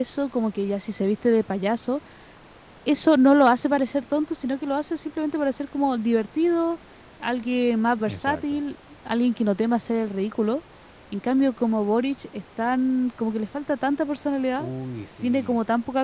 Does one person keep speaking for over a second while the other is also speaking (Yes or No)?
No